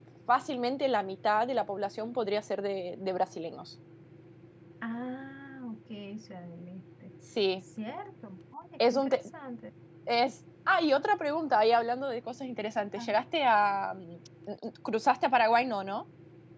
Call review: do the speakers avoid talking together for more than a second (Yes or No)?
Yes